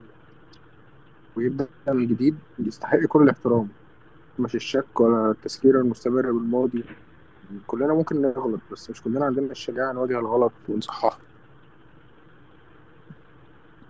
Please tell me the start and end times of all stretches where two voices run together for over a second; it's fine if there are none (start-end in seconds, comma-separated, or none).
none